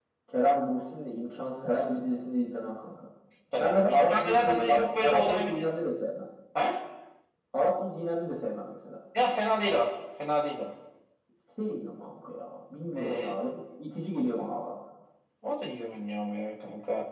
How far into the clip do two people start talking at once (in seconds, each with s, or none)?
3.6 s